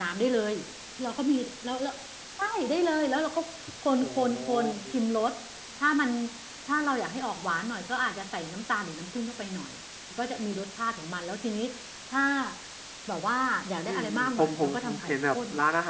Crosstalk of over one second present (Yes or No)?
Yes